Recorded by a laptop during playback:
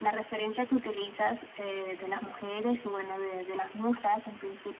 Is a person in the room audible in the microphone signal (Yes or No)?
No